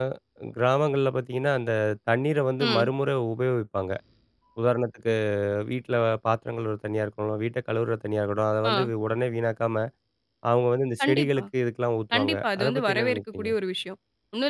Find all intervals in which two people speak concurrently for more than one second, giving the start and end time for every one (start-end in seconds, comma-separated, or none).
12.1-13.5